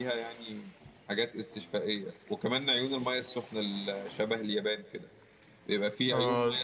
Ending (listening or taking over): listening